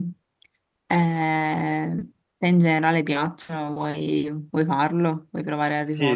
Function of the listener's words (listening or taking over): taking over